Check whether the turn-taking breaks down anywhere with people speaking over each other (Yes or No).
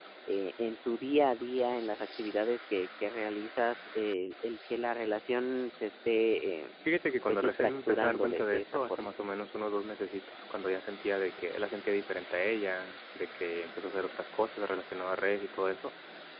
Yes